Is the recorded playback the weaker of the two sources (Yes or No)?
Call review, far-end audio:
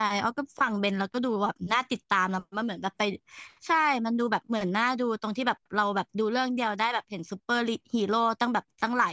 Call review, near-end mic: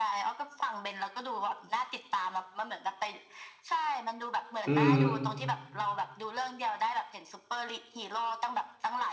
Yes